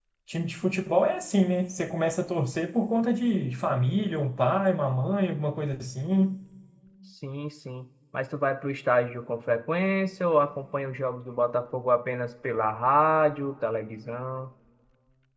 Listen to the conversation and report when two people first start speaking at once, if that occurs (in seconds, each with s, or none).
none